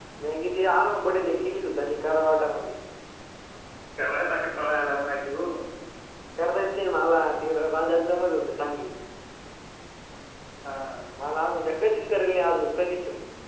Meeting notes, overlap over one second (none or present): none